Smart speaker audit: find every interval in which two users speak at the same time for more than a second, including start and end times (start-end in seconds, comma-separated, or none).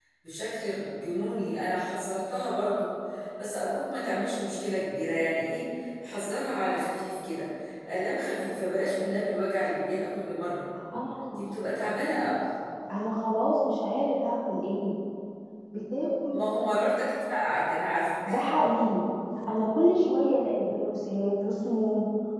none